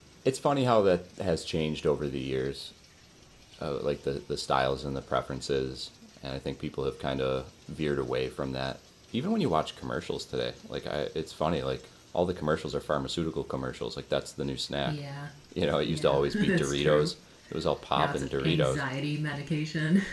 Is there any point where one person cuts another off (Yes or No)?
Yes